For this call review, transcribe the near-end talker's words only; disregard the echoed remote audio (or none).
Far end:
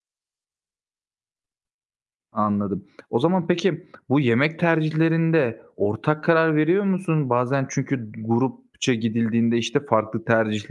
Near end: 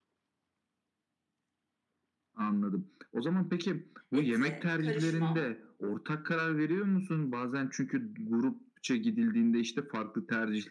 Et'i karışmam.